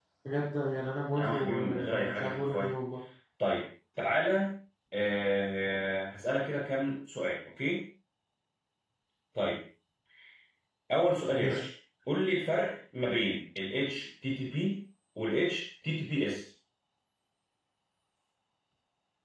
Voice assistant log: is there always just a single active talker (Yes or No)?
No